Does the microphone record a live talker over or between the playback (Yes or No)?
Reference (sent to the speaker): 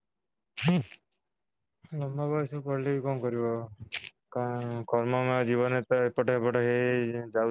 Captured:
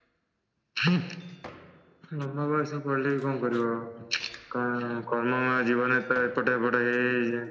No